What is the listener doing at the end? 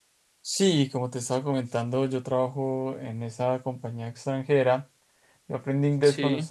listening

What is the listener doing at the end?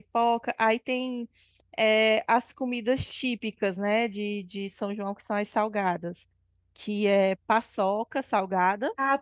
taking over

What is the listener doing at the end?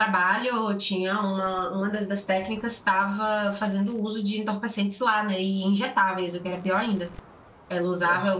listening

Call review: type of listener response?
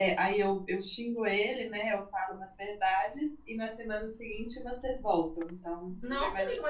taking over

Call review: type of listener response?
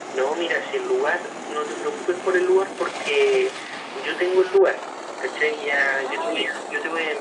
listening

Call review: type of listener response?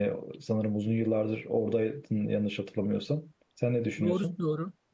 taking over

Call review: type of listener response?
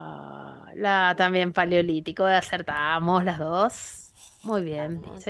listening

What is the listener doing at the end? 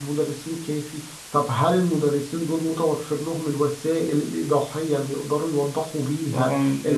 taking over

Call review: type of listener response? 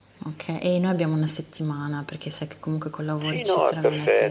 taking over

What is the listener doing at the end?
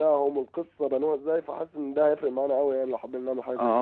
taking over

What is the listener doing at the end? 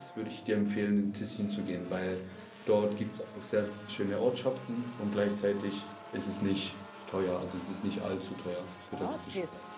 taking over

